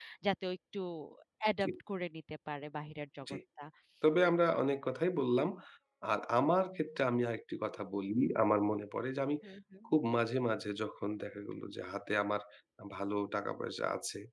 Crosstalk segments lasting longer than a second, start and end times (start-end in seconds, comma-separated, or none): none